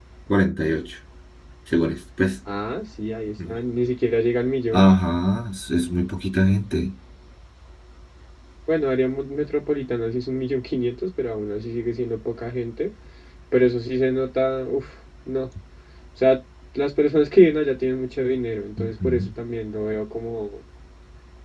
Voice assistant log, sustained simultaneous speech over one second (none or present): none